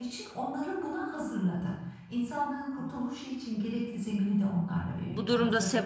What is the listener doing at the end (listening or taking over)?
taking over